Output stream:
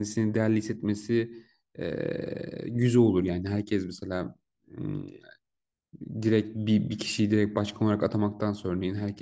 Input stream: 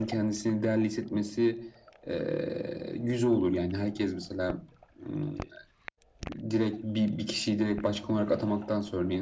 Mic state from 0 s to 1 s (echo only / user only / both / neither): echo only